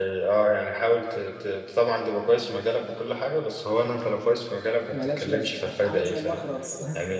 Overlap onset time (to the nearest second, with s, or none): 5 s